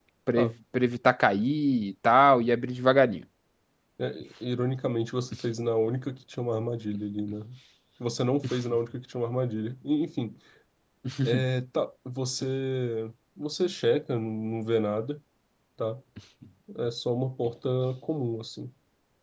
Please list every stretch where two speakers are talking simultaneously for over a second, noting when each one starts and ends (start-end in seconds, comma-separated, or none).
none